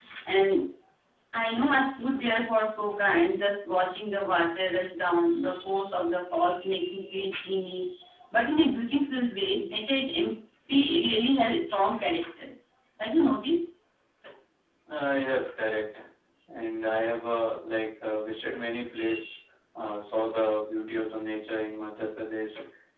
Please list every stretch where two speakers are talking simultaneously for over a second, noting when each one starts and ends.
none

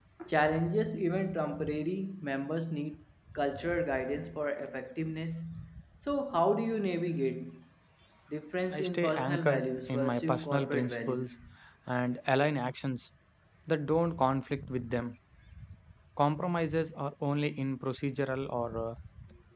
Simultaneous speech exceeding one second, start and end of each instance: 8.7-11.3

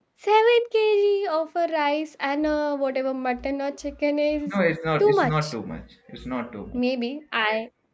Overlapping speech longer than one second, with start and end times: none

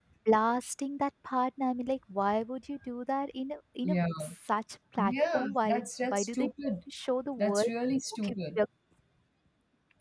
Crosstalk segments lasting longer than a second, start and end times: 5.0-6.5

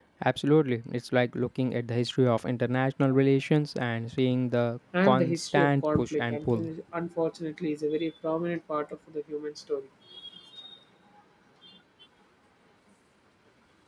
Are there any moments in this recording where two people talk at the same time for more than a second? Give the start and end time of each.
5.0-6.7

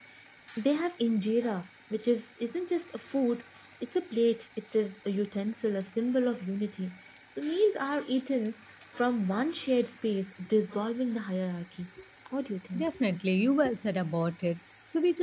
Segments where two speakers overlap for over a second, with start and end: none

